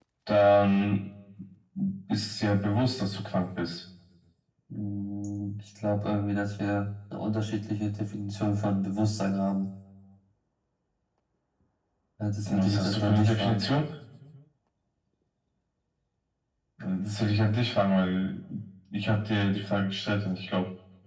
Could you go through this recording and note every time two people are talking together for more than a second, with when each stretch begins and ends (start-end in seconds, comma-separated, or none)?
12.4-13.7